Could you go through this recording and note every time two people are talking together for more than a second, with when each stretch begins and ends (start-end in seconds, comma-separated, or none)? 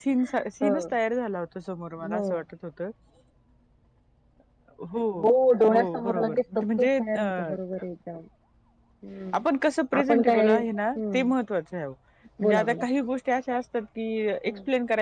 5.7-7.5, 10.0-11.2